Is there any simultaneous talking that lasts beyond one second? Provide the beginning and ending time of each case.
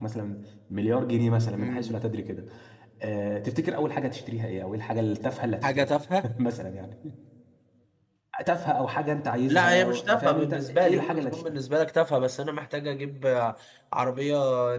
9.5-11.4

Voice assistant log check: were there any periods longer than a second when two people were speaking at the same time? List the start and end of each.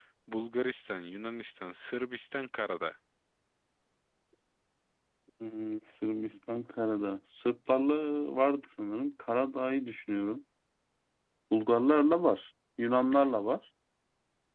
none

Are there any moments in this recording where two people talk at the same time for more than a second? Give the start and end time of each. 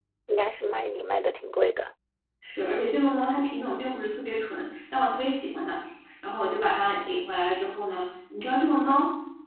none

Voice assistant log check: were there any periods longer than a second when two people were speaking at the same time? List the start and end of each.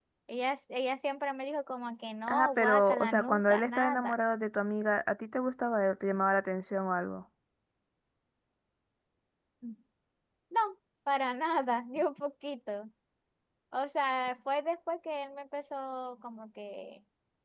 2.3-4.1

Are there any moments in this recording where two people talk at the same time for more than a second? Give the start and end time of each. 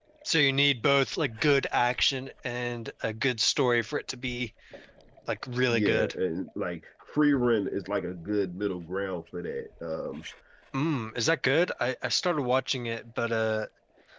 none

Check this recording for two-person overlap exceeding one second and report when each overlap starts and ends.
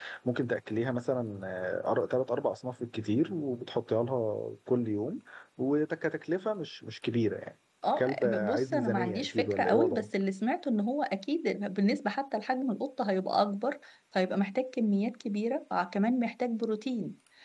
8.0-10.1

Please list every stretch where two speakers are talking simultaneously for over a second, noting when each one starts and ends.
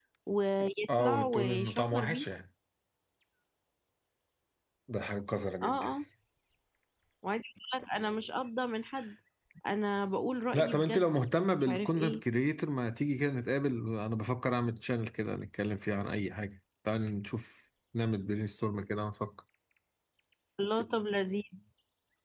1.0-2.2, 10.5-12.2

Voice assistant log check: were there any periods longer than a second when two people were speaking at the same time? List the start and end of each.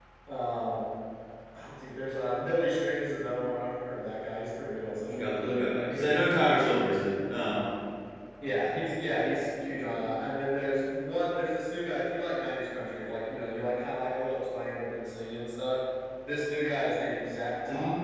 none

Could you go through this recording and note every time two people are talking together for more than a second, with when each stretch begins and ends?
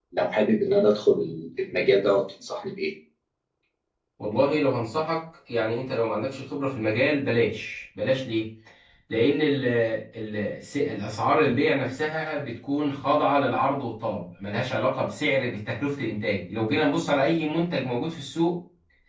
none

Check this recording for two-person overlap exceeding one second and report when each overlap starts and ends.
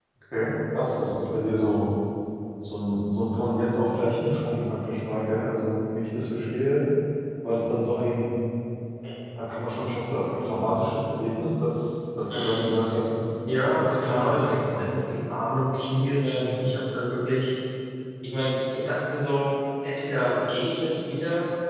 13.5-14.8

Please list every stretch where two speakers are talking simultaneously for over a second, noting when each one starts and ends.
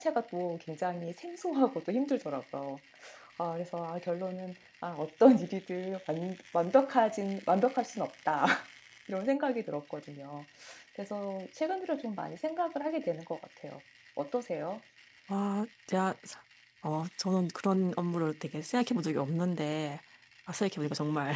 none

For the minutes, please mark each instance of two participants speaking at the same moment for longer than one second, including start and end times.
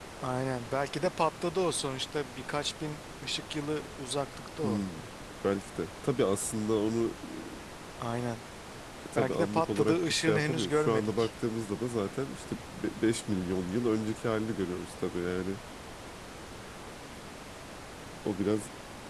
9.2-11.3

